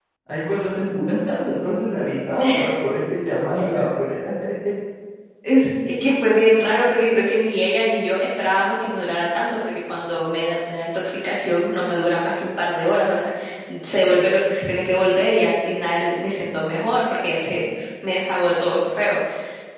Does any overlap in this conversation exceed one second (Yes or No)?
No